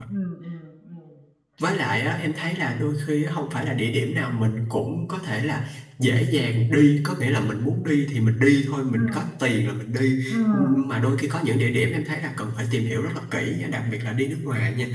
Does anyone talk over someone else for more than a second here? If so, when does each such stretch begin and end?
none

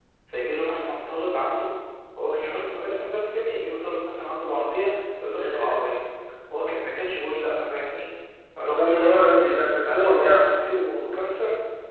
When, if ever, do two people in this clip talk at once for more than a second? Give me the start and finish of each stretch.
8.8-10.6

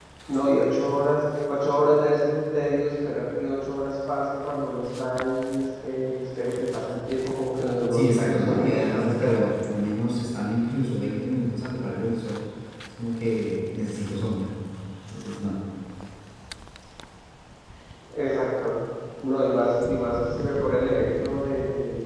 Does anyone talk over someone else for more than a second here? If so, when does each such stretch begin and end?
7.9-9.5

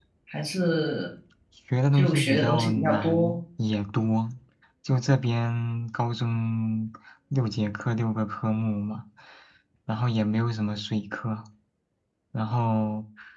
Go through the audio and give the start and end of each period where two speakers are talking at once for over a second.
1.9-3.4

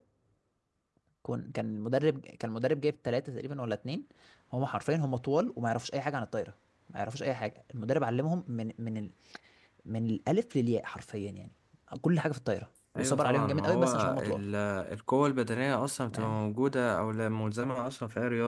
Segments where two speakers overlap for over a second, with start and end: 13.0-14.4

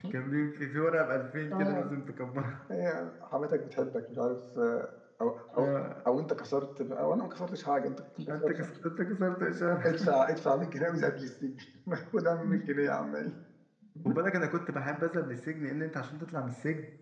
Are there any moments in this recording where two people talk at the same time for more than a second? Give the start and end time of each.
none

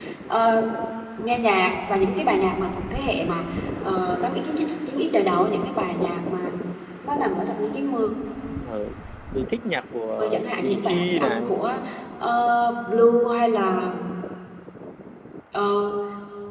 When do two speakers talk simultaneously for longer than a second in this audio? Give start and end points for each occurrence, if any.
10.3-11.7

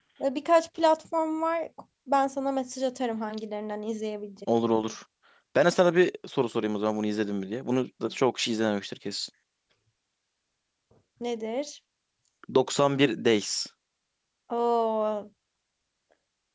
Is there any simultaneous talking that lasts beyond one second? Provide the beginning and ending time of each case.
none

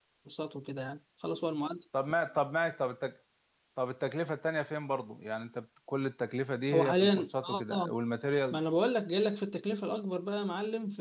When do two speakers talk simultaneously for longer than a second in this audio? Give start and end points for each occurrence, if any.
6.7-7.9

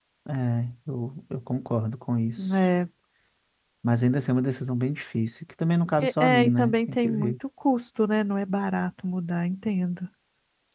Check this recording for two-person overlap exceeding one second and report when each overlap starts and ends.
6.0-7.3

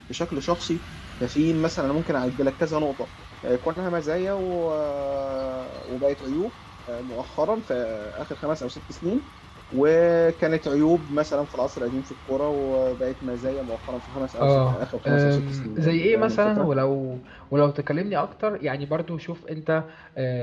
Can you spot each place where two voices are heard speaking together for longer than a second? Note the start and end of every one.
14.4-16.7

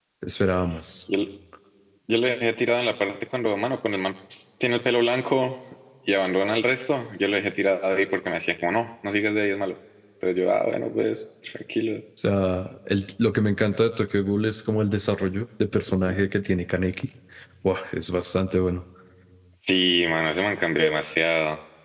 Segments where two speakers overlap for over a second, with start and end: none

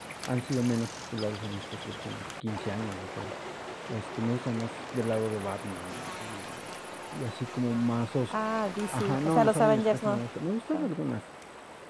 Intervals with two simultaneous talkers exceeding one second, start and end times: 8.9-10.2

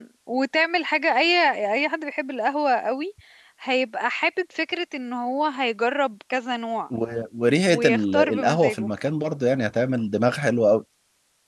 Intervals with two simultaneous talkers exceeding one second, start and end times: 7.7-8.9

